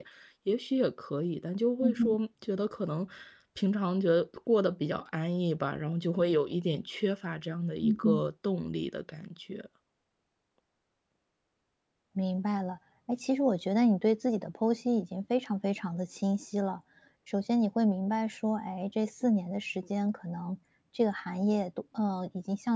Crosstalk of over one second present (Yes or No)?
No